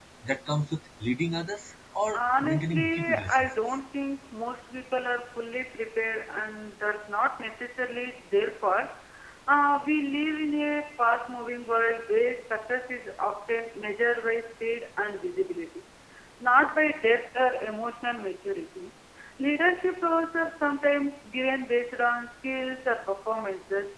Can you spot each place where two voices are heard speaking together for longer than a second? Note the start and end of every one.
2.1-3.8

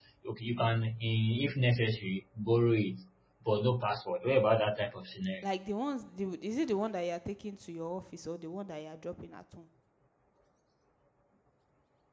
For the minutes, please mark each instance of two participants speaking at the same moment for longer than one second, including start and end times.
none

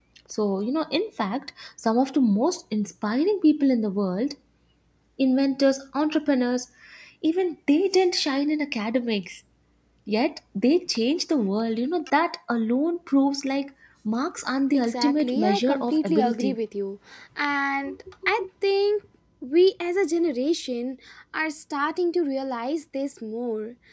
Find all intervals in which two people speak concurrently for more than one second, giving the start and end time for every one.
14.7-16.6

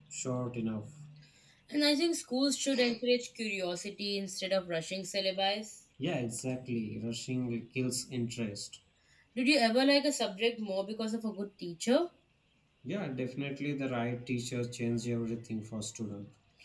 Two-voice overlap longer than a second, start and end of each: none

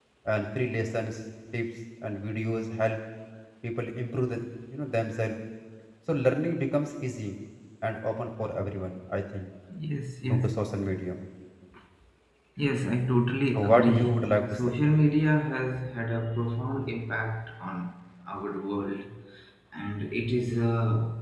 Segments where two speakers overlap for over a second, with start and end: 13.5-14.7

